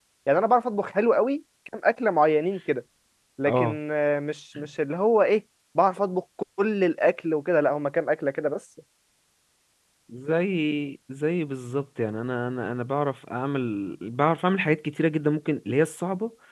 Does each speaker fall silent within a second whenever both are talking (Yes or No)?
Yes